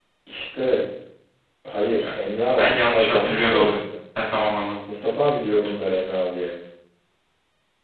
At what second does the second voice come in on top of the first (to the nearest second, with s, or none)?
3 s